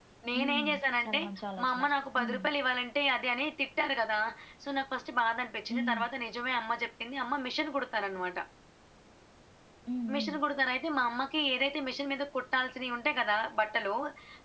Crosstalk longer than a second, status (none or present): none